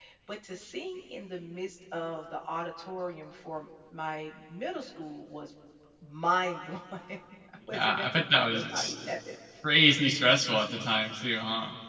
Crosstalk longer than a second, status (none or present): present